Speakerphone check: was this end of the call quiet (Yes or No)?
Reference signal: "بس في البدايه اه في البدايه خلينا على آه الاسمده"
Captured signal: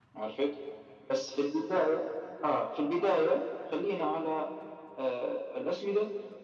Yes